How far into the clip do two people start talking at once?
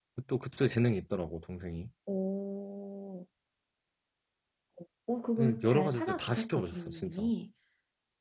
5.4 s

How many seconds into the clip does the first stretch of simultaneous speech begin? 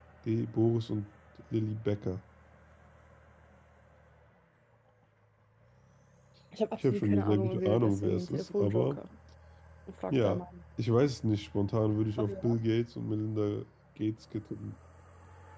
6.8 s

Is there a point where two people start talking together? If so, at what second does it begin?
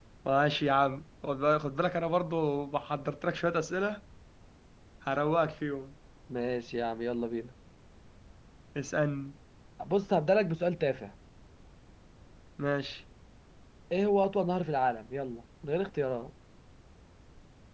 none

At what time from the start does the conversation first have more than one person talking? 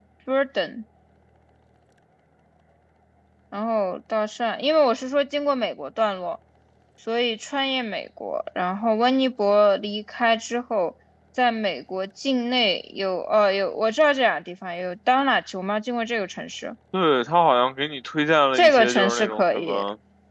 18.6 s

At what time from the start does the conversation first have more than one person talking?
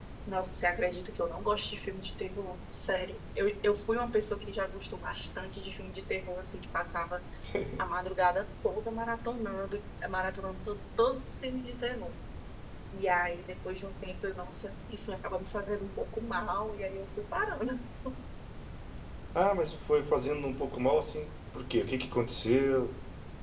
none

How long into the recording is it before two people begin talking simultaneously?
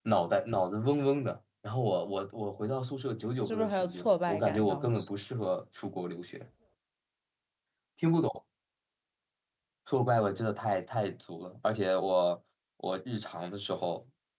3.4 s

